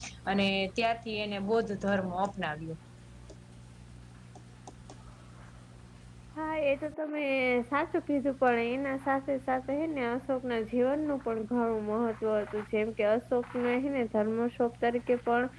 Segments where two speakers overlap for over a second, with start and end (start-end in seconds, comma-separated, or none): none